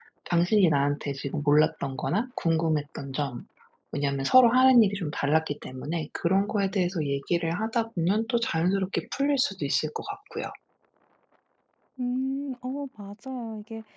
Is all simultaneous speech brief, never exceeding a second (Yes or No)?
Yes